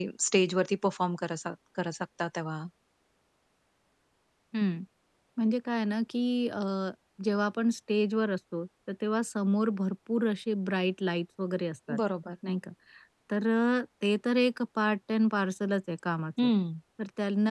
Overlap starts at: none

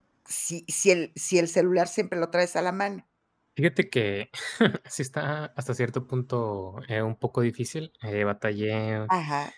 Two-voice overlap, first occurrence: none

